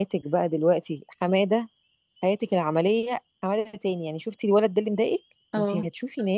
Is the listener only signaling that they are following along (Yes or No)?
Yes